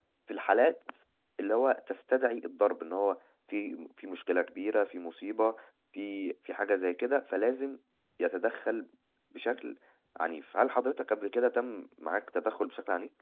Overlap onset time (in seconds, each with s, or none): none